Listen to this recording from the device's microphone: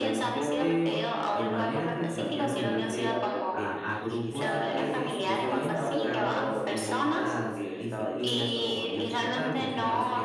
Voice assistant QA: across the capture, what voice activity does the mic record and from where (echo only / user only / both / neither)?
both